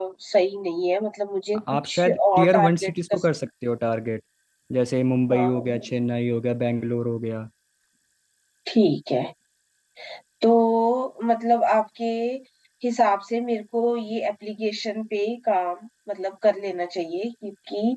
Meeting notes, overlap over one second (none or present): present